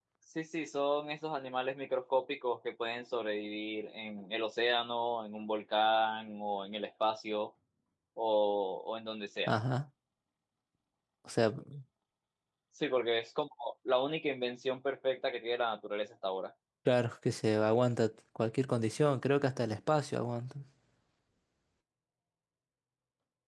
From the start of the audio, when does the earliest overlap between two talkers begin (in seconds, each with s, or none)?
none